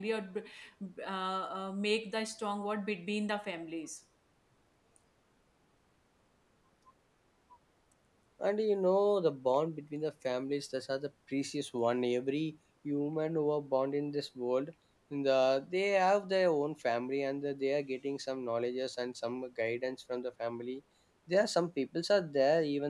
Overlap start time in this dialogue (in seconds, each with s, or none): none